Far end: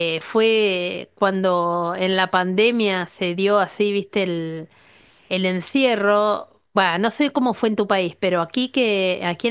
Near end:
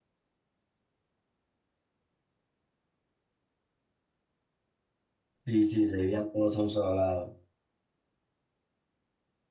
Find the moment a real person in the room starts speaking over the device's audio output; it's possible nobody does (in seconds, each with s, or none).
5.4 s